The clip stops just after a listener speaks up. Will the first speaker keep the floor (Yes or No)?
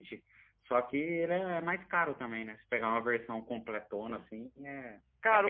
No